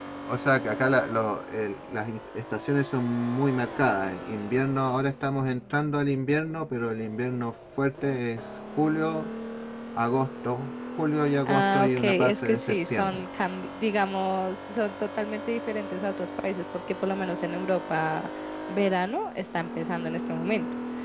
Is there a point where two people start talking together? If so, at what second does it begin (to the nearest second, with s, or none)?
11 s